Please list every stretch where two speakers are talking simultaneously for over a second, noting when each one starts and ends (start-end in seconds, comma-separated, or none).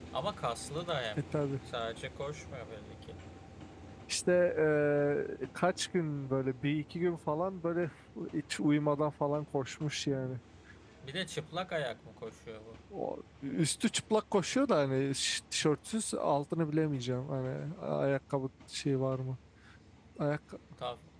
none